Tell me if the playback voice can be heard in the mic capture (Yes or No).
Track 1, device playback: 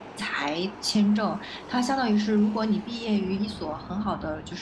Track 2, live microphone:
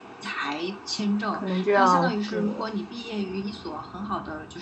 Yes